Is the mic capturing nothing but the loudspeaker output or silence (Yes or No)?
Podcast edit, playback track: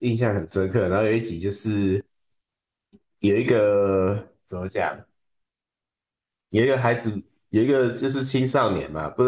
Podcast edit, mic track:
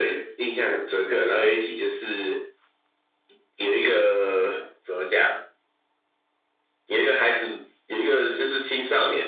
Yes